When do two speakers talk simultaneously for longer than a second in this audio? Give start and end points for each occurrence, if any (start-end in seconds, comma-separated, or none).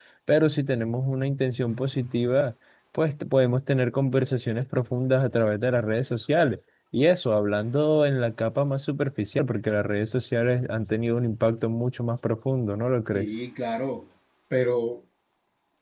none